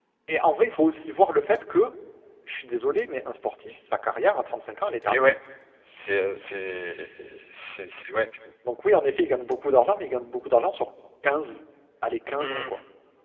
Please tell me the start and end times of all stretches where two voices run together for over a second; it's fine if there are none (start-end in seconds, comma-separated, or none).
none